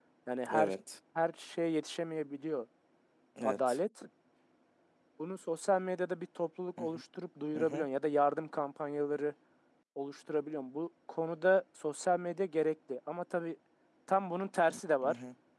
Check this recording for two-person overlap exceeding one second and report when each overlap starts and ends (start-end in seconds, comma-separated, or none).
none